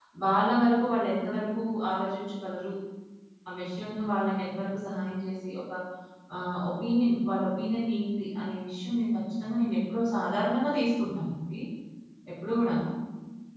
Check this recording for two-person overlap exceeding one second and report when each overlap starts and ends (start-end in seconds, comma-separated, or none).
none